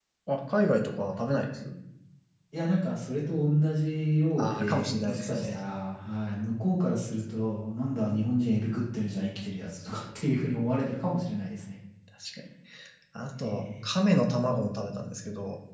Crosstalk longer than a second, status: present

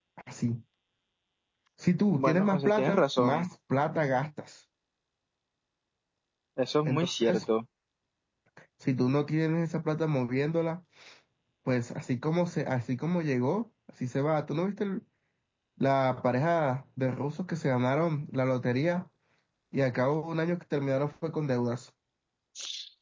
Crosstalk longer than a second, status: present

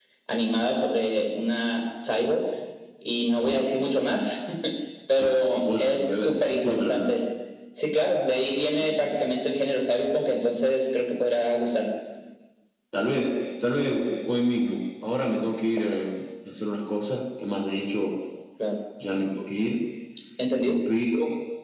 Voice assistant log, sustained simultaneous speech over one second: present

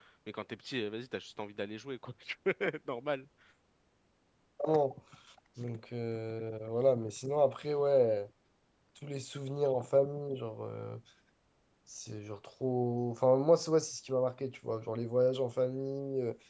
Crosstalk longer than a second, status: none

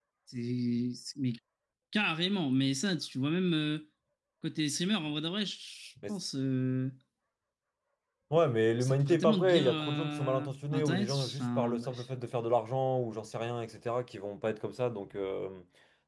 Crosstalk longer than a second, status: present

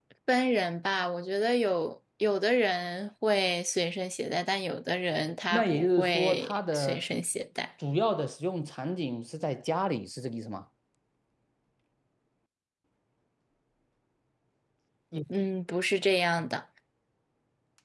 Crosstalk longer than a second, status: present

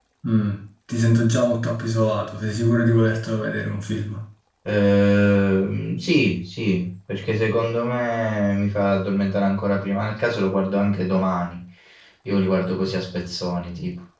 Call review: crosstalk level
none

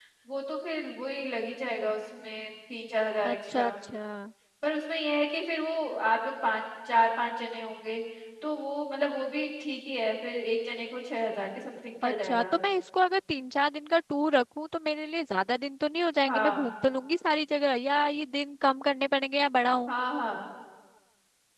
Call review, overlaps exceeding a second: none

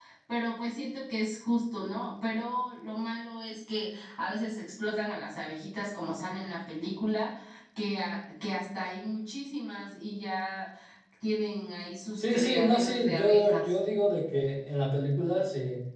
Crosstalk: present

